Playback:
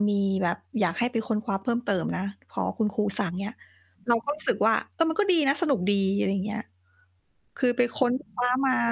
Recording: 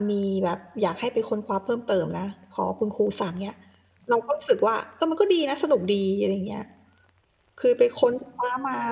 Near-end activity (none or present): none